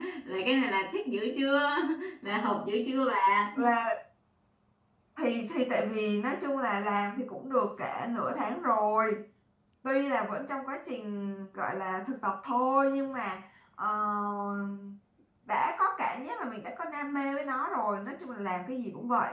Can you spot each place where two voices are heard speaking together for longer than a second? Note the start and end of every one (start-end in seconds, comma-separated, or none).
none